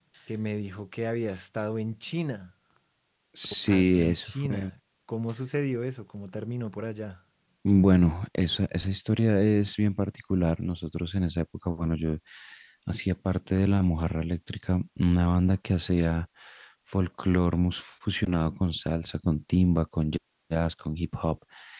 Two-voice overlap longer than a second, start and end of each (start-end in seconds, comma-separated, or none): 3.5-4.7